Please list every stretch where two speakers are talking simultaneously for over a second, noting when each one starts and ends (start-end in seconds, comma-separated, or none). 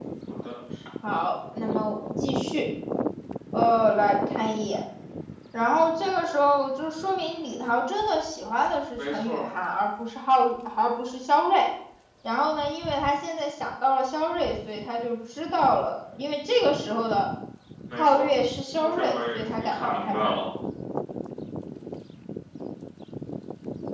18.8-20.3